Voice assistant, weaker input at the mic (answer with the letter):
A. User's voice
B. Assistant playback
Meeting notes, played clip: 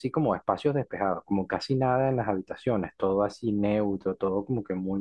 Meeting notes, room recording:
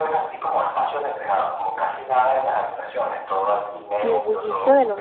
B